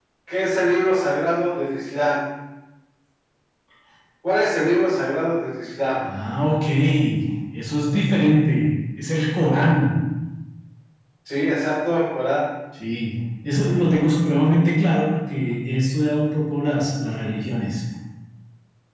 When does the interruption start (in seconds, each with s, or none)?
none